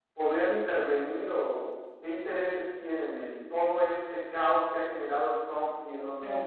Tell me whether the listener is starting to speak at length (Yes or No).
Yes